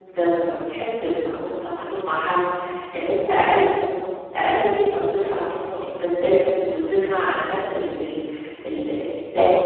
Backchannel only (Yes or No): Yes